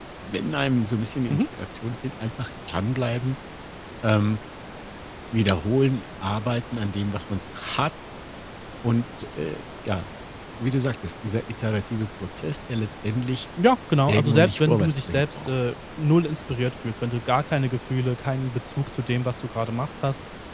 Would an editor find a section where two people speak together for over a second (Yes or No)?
Yes